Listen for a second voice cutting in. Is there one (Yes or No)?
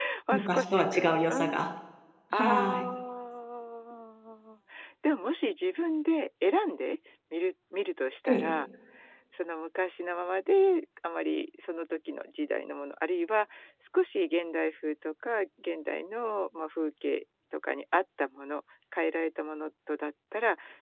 Yes